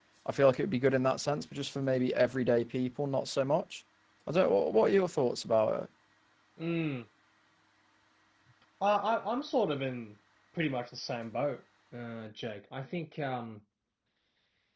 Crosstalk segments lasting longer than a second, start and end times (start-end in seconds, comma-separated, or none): none